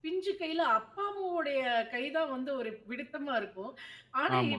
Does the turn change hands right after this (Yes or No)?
No